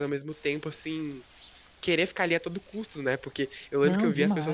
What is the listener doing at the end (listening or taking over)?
listening